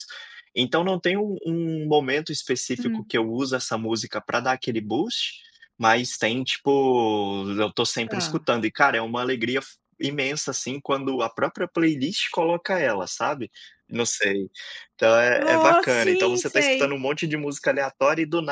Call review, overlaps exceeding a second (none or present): present